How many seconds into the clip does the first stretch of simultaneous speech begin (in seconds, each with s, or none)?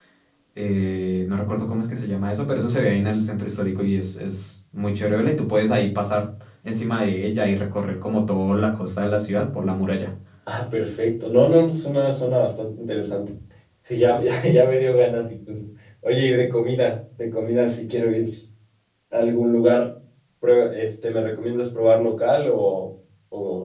none